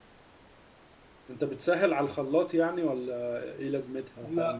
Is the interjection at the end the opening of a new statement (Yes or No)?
Yes